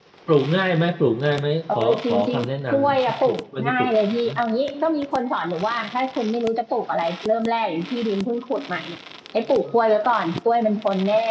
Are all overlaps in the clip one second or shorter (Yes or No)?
No